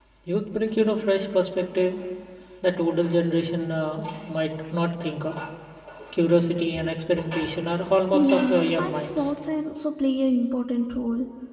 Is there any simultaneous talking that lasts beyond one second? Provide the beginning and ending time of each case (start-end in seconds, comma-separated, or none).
8.1-9.3